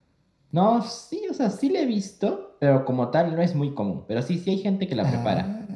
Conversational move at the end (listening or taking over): listening